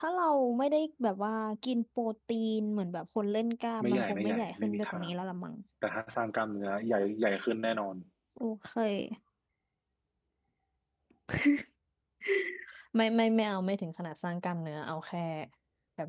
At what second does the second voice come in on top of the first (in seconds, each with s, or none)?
3.8 s